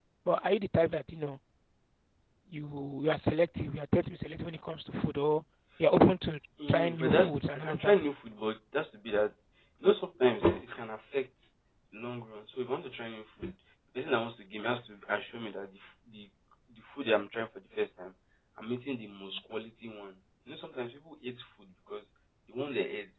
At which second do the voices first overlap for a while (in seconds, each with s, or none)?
6.6 s